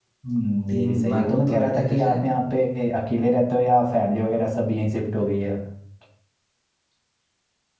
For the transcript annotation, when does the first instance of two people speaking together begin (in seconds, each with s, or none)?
0.7 s